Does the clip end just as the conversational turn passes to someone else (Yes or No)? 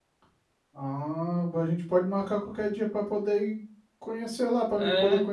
Yes